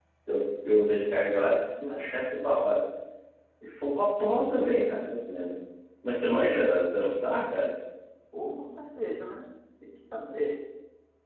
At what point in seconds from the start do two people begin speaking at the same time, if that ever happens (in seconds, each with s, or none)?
none